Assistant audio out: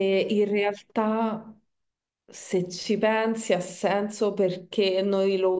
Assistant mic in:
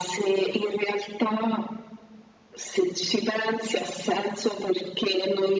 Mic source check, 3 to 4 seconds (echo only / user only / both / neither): echo only